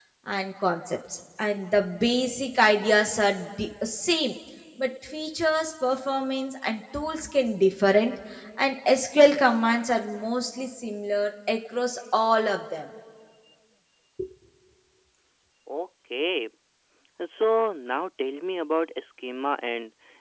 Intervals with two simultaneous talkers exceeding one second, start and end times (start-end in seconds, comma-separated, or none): none